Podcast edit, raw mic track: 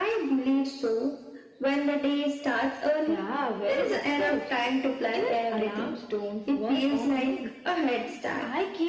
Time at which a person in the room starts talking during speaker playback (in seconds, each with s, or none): none